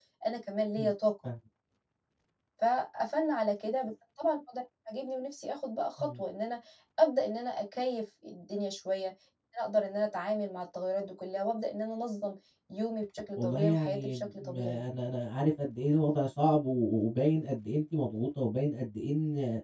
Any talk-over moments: Yes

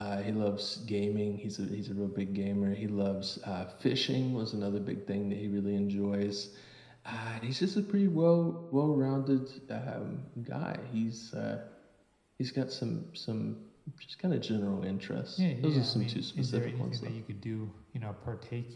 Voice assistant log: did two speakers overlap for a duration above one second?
Yes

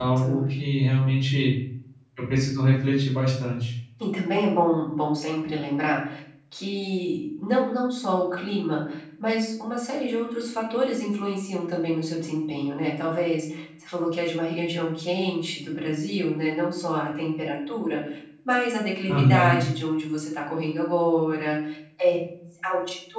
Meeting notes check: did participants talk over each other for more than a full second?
No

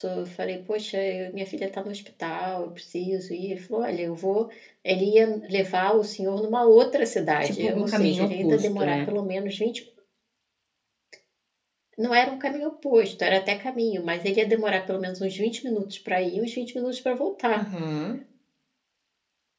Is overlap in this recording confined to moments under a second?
No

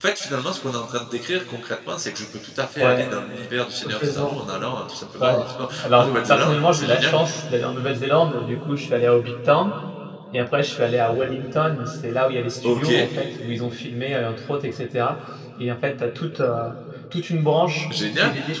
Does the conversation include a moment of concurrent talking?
Yes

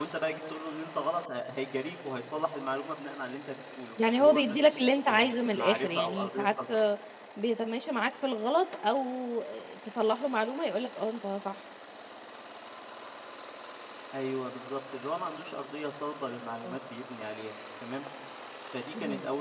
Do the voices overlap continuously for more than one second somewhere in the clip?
Yes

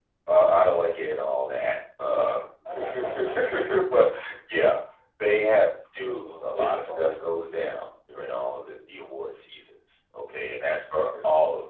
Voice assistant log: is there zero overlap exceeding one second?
No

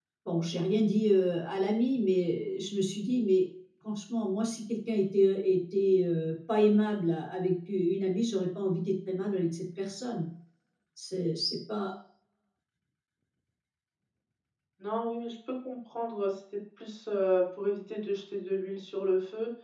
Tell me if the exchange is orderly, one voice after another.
Yes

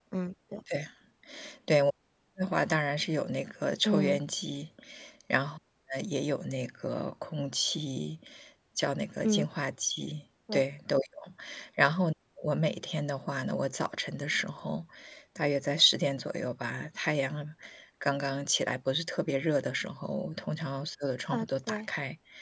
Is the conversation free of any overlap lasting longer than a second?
Yes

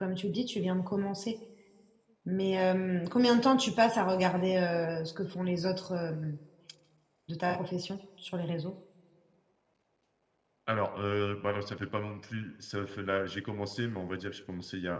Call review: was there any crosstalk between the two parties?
No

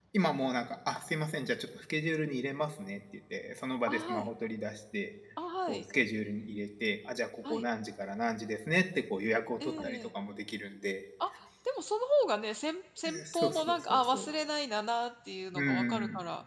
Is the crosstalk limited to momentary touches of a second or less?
No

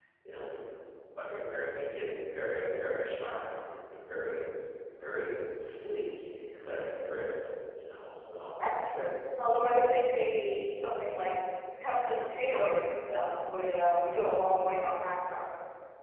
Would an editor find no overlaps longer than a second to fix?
Yes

